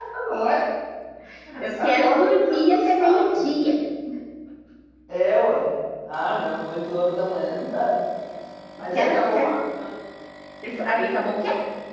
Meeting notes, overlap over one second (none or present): present